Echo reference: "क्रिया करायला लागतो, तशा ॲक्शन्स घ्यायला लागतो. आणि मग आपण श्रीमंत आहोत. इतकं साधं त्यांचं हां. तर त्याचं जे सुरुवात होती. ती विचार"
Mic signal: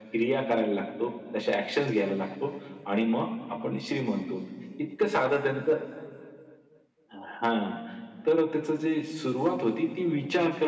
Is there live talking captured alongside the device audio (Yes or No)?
No